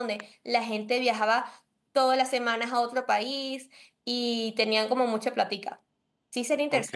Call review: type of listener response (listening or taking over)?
taking over